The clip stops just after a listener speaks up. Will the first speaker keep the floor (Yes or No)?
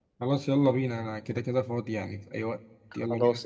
No